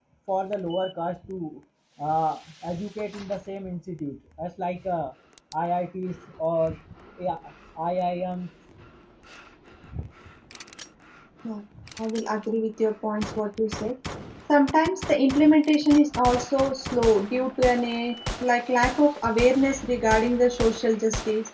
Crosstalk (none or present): none